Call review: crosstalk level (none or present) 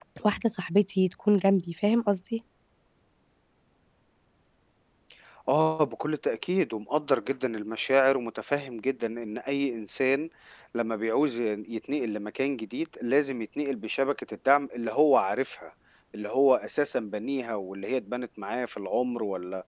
none